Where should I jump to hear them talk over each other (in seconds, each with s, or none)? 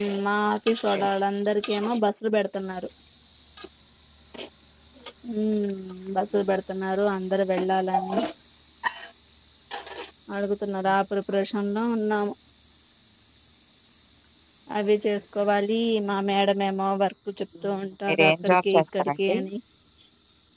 18.1 s